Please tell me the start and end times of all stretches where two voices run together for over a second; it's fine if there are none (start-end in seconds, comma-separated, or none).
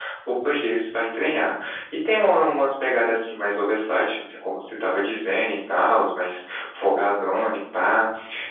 none